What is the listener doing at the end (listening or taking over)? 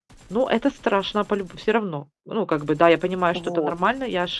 listening